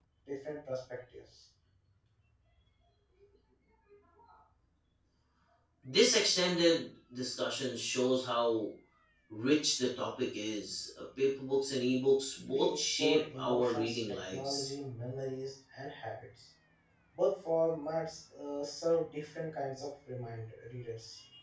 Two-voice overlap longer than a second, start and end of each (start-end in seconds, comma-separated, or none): 12.5-14.7